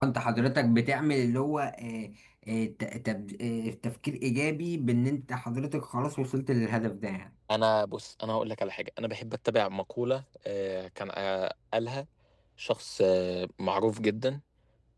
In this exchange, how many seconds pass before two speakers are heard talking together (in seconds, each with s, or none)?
none